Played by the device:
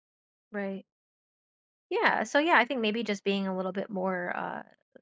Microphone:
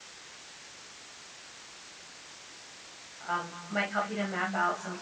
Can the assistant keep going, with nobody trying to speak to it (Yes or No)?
No